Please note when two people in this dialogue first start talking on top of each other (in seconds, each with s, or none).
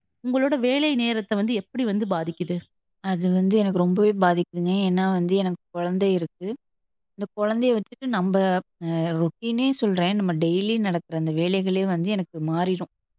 none